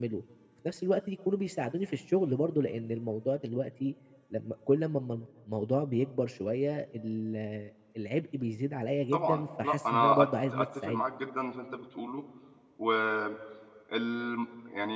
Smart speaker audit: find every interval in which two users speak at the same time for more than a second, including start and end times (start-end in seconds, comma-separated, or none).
9.1-11.0